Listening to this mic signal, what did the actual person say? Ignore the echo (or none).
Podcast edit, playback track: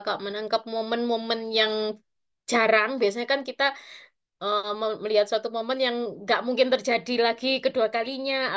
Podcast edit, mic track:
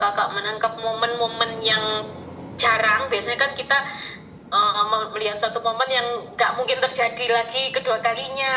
none